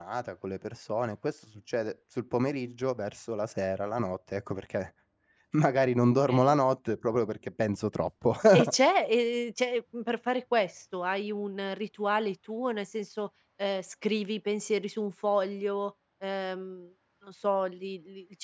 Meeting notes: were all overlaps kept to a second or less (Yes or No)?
Yes